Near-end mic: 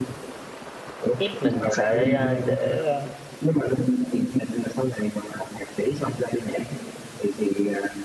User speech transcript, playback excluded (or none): ép mình xài AI để ờ,